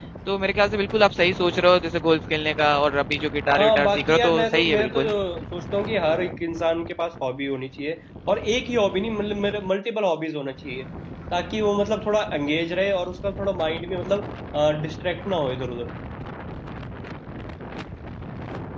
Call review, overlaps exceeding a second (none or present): present